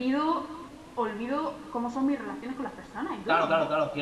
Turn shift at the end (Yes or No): Yes